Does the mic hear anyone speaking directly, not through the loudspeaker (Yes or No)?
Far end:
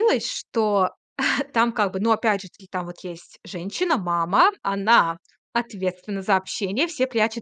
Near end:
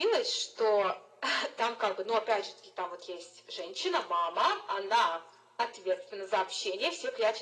No